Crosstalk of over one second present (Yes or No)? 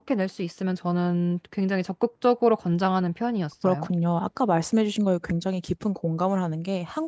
No